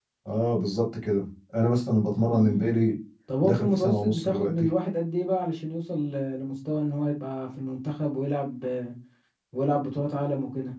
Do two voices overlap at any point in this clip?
Yes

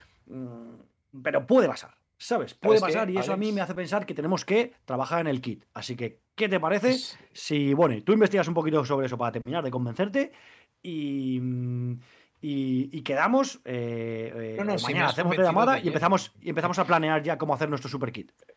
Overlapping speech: Yes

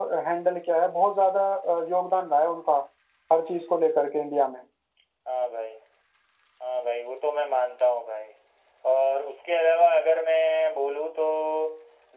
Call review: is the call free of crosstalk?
Yes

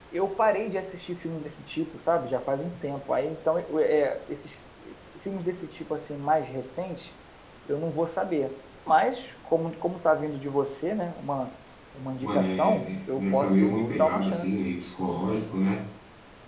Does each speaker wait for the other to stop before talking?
No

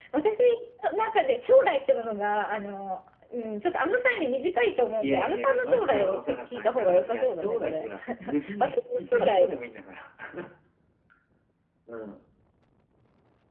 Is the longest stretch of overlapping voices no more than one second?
No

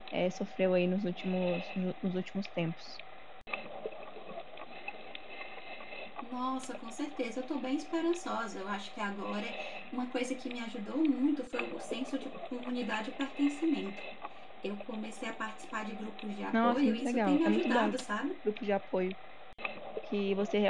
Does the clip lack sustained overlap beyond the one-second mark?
No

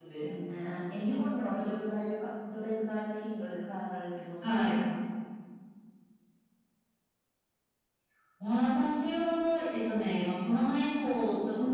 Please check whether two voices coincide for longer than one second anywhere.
No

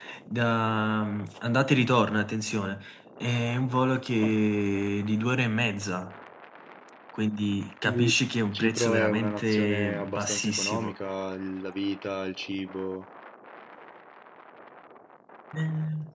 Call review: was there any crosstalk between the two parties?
Yes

